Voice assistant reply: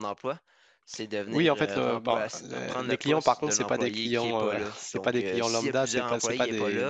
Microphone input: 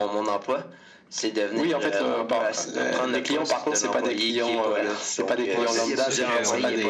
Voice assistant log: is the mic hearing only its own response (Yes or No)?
No